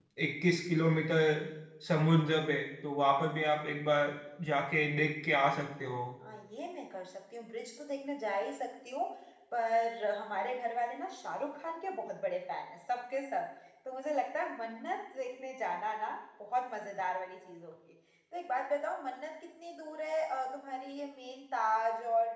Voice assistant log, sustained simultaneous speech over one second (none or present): none